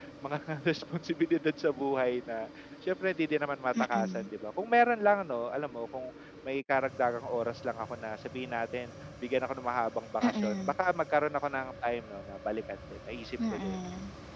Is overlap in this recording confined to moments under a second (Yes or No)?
Yes